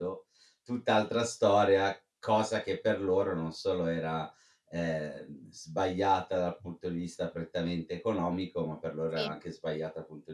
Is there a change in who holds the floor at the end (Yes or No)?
No